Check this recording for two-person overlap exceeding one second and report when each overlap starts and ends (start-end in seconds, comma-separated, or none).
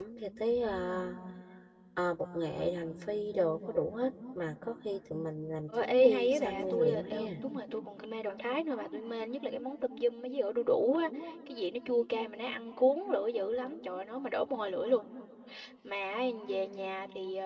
5.8-7.3